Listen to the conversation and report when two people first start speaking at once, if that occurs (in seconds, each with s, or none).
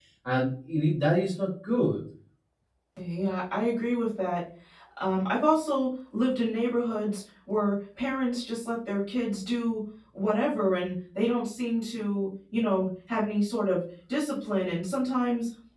none